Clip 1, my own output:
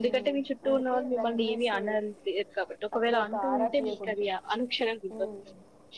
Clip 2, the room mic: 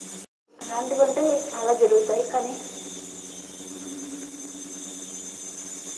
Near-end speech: present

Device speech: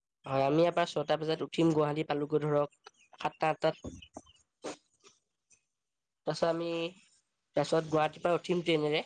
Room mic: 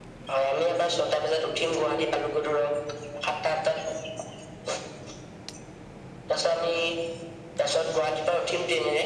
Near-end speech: none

